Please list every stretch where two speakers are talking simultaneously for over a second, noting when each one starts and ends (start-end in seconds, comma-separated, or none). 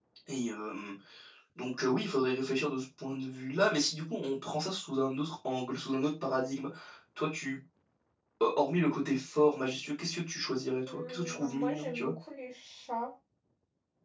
10.8-12.1